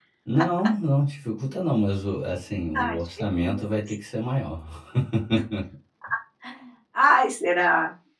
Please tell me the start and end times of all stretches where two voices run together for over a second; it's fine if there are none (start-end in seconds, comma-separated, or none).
2.7-4.0